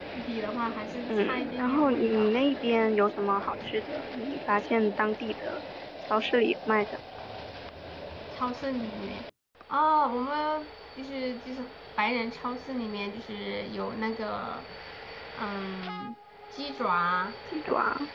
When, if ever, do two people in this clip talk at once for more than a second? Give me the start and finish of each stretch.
1.1-2.3

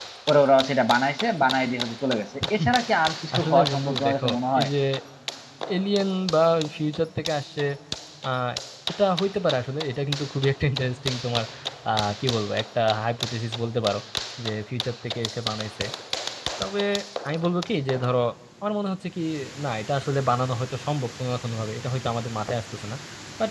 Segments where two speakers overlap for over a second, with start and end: 3.3-4.7

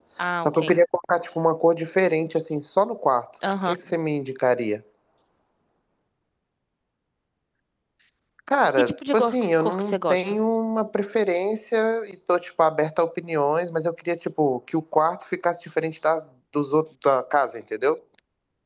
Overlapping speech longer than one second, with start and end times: 8.8-10.4

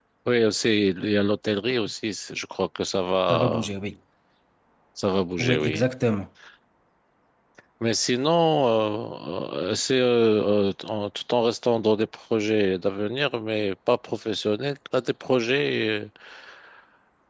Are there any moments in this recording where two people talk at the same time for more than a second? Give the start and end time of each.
none

